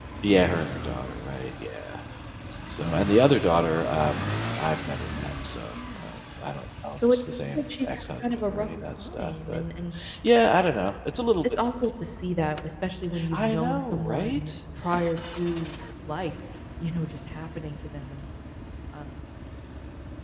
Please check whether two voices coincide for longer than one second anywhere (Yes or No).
Yes